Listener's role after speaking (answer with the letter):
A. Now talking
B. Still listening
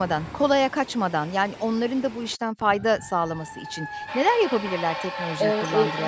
A